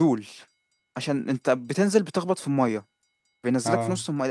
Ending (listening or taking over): listening